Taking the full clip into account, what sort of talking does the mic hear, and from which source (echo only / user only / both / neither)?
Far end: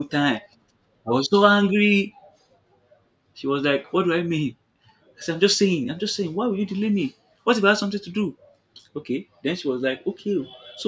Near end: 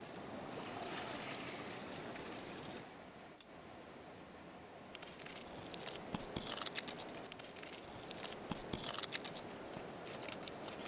neither